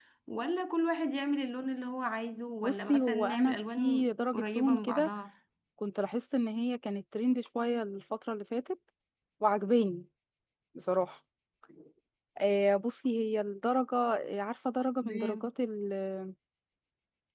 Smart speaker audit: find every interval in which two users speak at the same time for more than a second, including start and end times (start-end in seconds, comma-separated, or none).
2.6-5.1